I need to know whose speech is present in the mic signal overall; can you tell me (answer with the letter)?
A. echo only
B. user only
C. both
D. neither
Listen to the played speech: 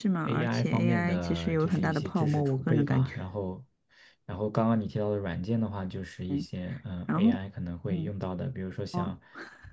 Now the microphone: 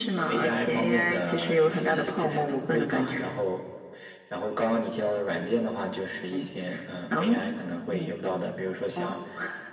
A